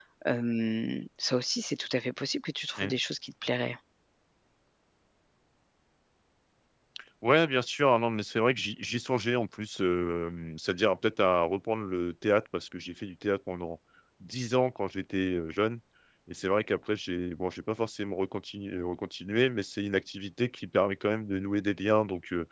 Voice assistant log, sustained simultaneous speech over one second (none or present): none